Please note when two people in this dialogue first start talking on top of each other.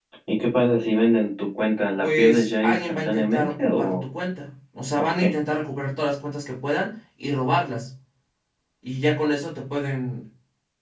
2 s

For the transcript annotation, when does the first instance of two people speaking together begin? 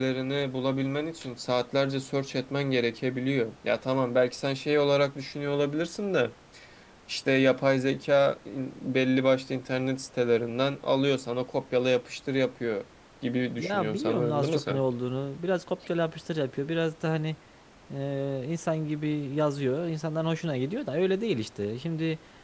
14 s

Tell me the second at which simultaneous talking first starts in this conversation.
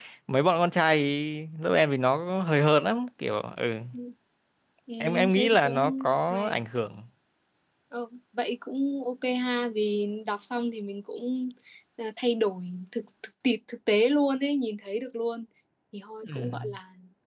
5 s

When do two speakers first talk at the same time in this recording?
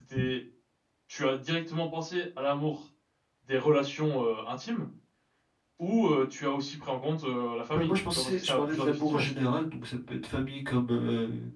8 s

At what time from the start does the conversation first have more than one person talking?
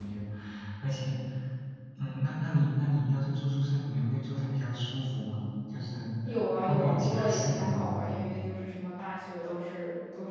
7 s

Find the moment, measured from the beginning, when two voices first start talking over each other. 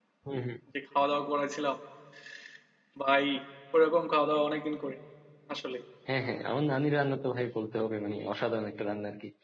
none

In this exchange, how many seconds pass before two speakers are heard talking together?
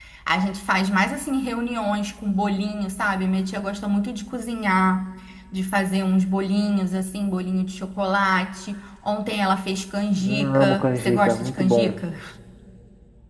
10 s

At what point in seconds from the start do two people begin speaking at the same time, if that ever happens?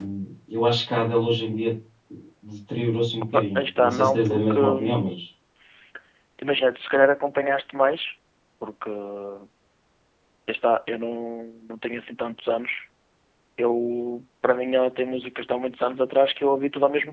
3 s

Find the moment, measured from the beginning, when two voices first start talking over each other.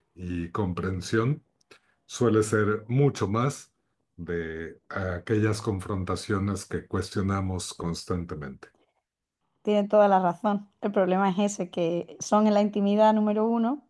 none

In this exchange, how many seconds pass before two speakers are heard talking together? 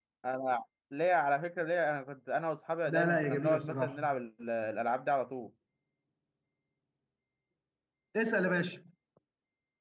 3 s

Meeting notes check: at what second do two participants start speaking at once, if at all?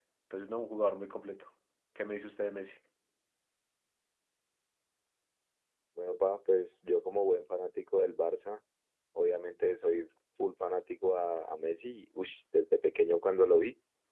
none

